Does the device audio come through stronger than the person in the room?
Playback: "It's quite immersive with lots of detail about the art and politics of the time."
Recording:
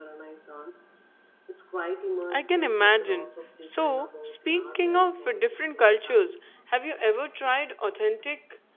No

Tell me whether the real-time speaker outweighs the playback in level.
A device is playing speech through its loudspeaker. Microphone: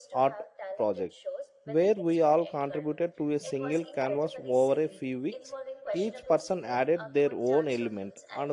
Yes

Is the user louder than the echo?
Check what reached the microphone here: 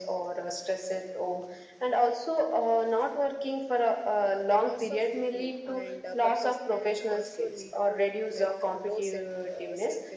No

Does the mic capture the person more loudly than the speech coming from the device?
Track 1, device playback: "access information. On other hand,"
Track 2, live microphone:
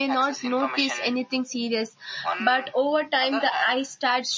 Yes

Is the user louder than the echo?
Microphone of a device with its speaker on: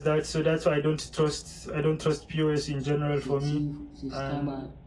No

